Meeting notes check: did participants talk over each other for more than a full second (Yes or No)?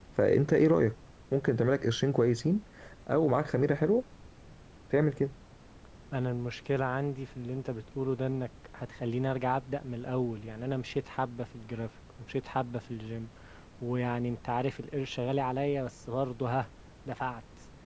No